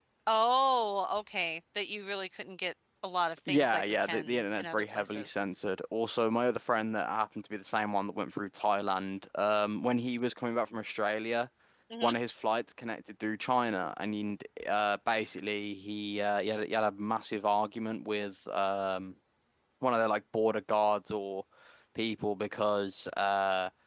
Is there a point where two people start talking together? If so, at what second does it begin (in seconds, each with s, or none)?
3.5 s